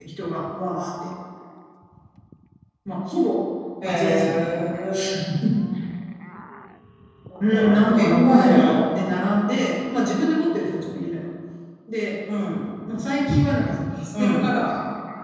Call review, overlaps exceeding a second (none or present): present